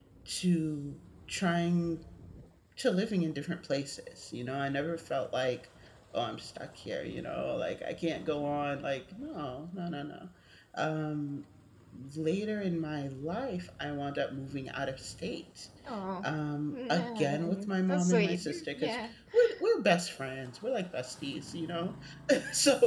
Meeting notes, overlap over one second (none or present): present